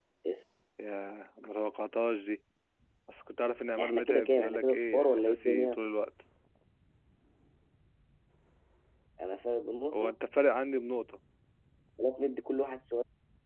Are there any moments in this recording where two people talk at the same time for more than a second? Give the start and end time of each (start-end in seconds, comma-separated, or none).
3.8-5.8